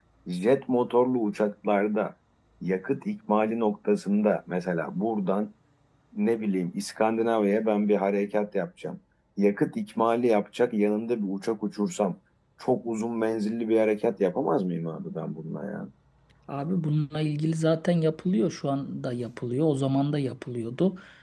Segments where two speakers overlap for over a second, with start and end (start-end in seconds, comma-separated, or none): none